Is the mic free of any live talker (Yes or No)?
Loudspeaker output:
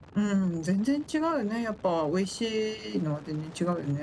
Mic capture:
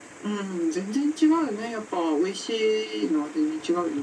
Yes